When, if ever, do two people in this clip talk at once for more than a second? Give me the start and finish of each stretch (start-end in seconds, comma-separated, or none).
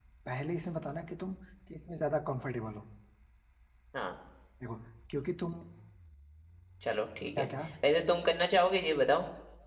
none